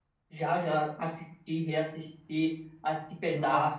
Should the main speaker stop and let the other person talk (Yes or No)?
No